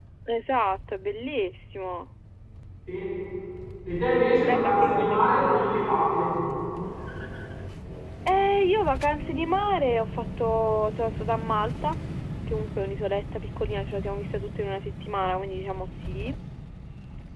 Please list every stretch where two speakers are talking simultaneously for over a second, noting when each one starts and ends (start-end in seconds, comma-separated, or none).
4.4-5.7